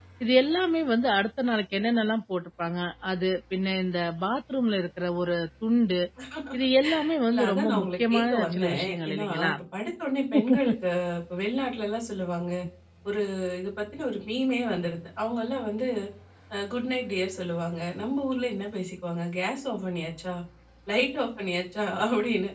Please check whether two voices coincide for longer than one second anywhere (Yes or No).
Yes